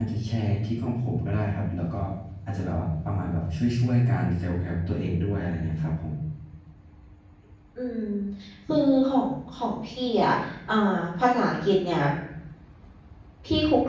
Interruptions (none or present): none